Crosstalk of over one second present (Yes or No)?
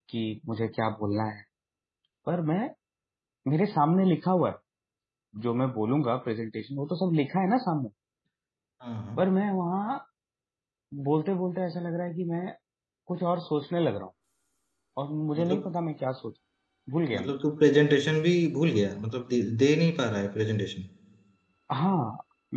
No